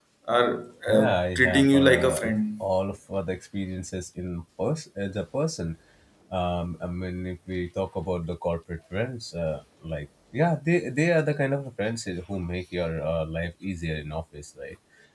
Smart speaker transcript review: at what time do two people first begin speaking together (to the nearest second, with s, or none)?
1 s